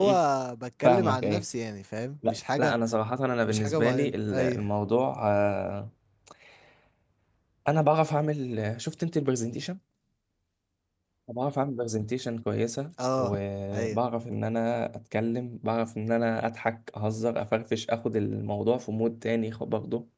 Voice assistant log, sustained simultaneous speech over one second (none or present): present